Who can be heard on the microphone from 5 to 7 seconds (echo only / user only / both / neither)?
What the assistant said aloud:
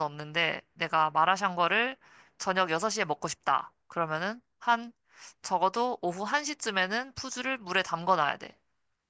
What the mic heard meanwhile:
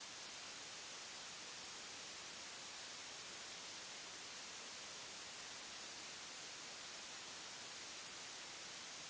neither